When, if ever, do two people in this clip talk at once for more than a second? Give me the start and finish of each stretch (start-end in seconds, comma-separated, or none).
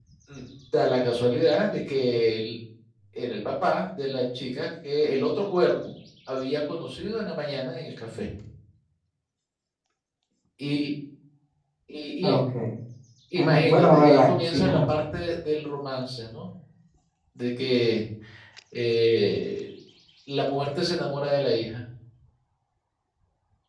13.3-14.8